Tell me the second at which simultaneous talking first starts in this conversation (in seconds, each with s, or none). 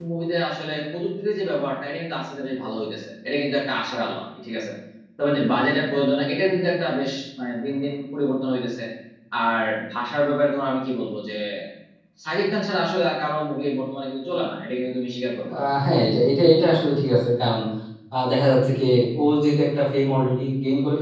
none